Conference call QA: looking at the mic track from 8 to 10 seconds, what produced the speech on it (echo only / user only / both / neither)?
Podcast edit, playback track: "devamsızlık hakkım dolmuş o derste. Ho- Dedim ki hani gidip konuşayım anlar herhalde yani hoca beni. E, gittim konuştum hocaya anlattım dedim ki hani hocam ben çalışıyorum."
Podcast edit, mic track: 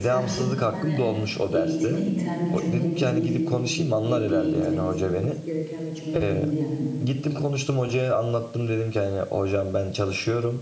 echo only